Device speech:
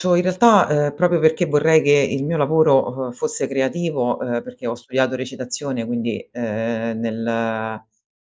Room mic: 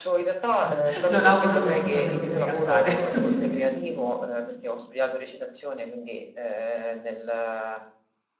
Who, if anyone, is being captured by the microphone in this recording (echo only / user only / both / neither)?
both